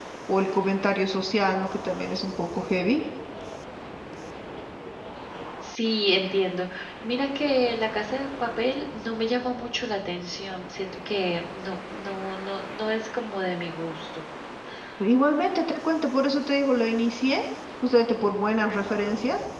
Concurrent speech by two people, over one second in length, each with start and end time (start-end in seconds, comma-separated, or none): none